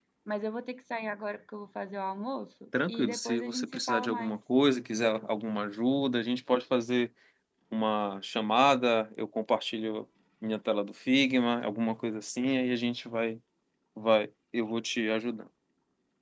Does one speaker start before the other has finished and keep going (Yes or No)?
Yes